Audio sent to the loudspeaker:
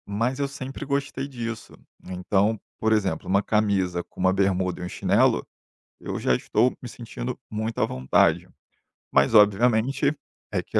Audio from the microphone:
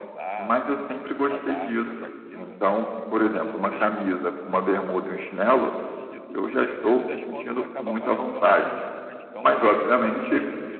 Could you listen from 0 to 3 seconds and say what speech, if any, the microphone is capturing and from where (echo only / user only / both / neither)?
both